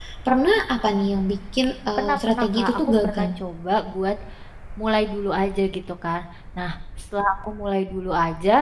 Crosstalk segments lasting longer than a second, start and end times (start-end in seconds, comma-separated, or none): 2.0-3.3